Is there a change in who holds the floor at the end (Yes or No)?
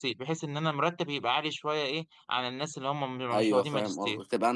Yes